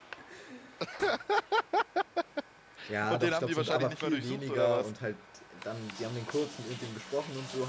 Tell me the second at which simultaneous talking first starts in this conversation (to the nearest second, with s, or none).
3 s